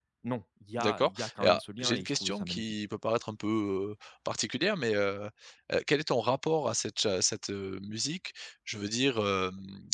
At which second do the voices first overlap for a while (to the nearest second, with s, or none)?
1 s